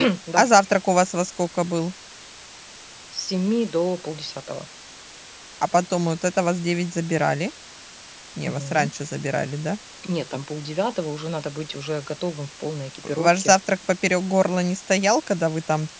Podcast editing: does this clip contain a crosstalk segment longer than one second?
No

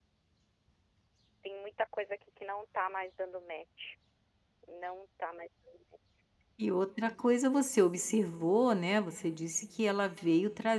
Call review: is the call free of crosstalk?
Yes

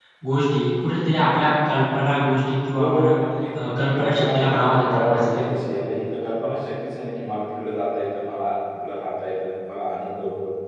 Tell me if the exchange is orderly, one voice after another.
No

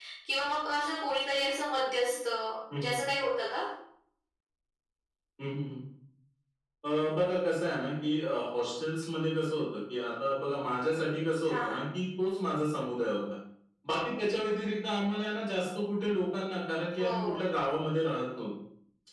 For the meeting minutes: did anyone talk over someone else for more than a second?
No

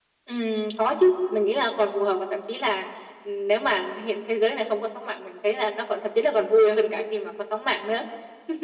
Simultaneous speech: No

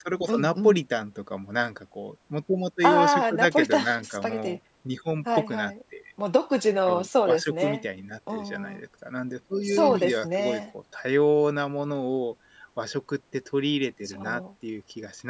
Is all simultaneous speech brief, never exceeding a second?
No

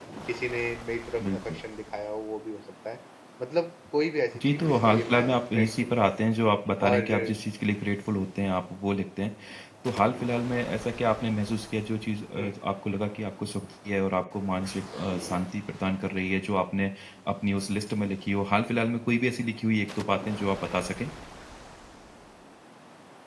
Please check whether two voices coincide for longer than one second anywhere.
Yes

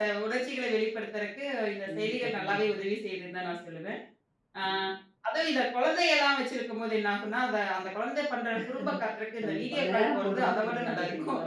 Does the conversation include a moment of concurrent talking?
Yes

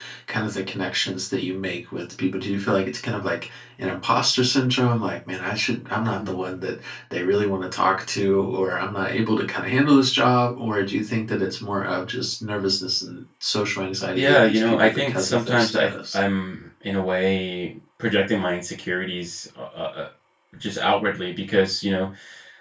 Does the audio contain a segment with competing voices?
Yes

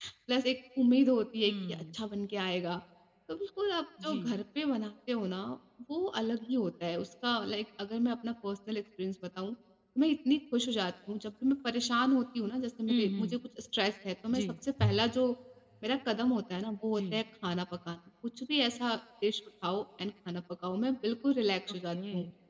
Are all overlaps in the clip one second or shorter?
Yes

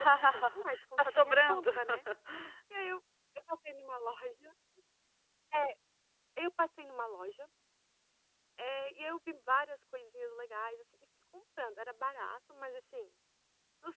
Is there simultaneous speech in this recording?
Yes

